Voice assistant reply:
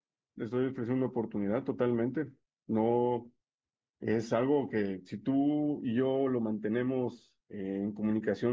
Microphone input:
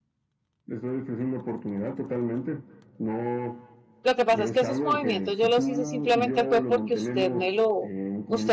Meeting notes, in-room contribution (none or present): present